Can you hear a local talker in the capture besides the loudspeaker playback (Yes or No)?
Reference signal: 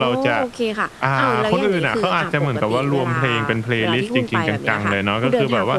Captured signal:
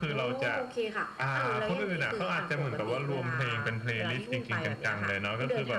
No